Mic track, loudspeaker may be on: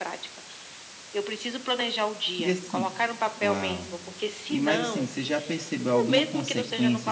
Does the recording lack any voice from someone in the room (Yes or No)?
No